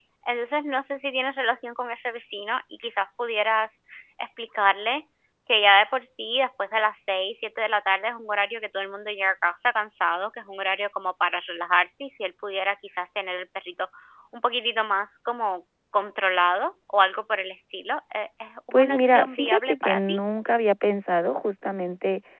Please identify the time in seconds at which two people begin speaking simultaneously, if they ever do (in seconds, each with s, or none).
18.7 s